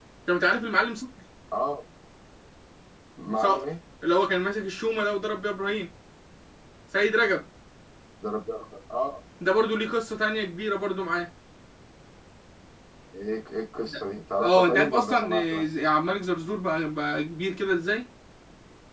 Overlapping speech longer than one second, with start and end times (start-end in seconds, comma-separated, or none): 14.4-15.7